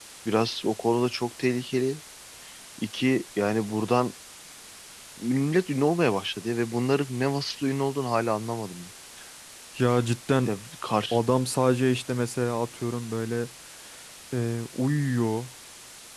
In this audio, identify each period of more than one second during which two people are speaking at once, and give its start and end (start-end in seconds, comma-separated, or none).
none